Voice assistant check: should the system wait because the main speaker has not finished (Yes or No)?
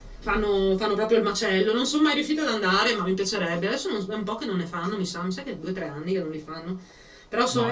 No